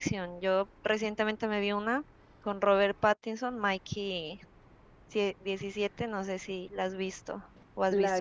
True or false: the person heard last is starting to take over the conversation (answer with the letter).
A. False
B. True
B